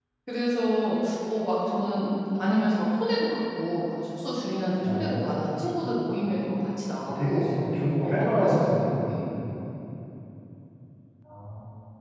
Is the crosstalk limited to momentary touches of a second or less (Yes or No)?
No